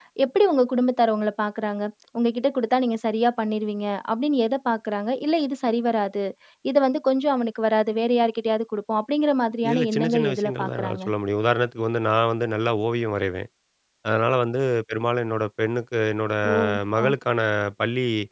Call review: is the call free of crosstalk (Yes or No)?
No